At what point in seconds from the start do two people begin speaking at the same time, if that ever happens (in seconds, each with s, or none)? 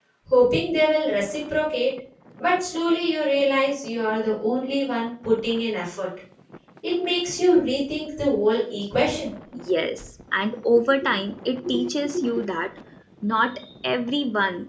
none